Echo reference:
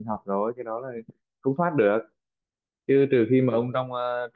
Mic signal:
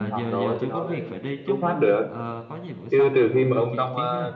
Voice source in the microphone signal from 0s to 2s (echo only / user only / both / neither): both